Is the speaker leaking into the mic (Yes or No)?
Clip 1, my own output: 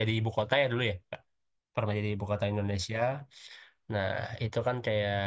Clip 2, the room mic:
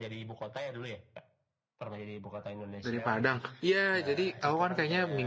Yes